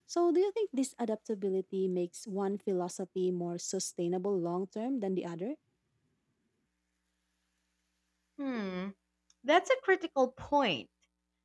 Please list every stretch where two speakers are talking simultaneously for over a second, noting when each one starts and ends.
none

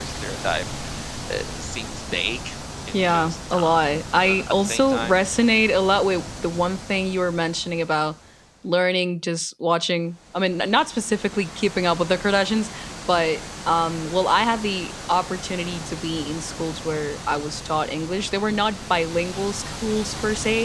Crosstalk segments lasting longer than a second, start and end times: 2.9-5.2

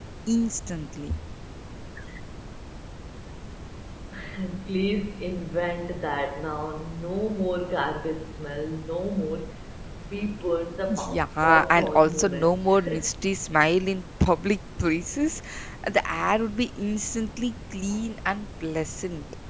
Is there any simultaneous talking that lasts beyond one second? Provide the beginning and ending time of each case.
10.9-12.8

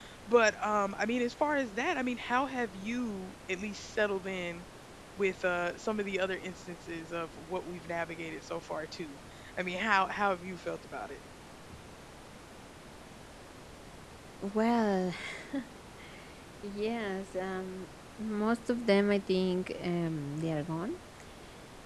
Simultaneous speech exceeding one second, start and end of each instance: none

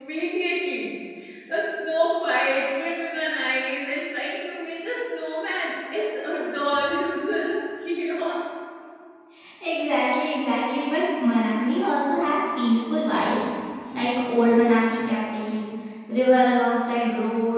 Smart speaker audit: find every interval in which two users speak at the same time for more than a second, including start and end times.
none

